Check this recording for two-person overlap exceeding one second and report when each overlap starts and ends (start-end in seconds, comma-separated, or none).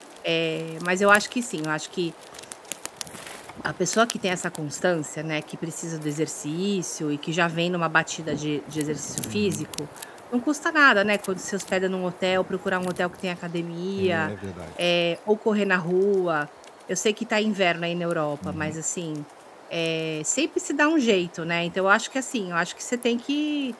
none